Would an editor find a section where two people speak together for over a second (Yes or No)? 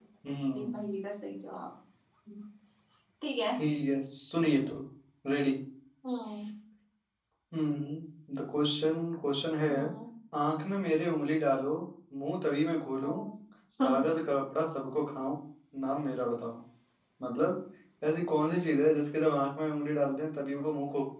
No